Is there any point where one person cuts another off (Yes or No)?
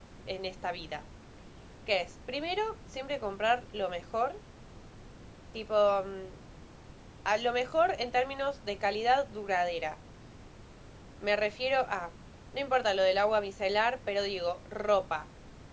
No